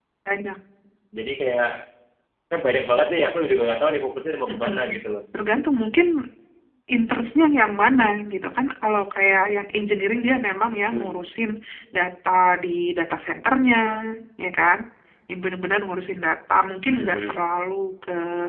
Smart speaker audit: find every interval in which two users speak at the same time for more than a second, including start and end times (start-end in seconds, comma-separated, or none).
none